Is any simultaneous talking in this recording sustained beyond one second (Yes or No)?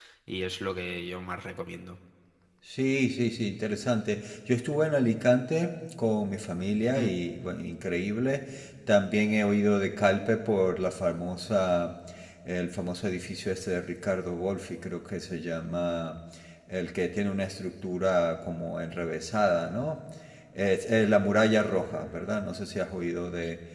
No